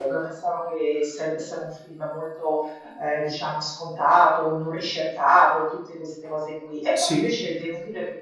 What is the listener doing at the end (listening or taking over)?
listening